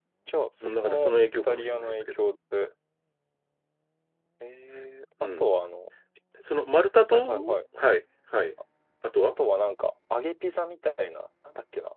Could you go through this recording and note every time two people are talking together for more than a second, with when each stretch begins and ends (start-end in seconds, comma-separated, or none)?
0.6-1.9